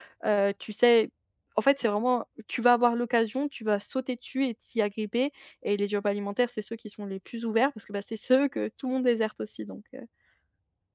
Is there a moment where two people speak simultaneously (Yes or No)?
No